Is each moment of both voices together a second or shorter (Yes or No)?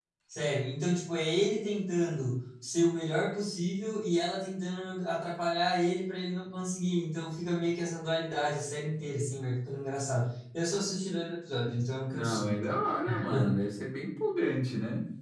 Yes